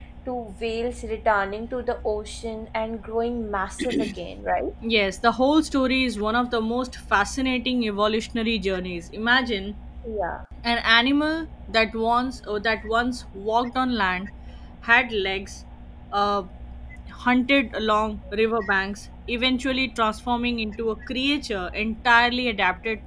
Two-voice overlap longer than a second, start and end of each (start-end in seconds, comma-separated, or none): none